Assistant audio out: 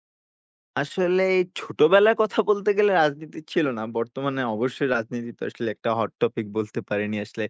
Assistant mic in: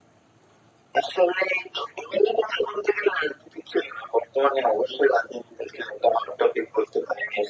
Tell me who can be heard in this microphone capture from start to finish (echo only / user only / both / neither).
echo only